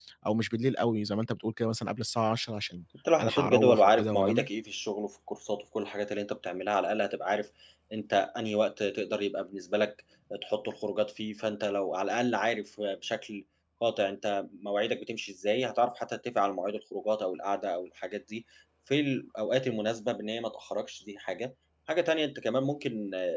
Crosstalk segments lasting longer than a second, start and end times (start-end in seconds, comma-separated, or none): 3.2-4.5